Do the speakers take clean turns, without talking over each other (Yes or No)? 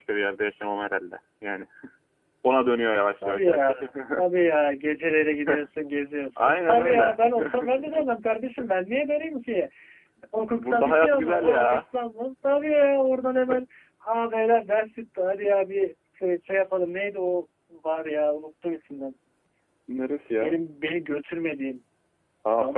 No